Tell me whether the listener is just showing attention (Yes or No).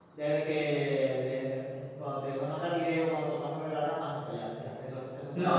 No